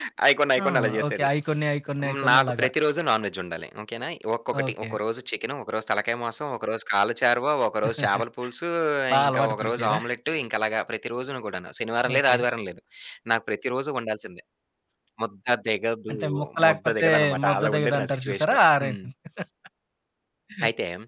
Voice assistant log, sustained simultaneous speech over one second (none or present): present